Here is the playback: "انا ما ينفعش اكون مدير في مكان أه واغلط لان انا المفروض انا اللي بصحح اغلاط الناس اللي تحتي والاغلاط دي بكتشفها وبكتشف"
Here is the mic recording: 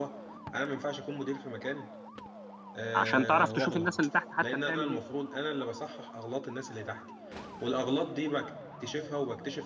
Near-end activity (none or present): present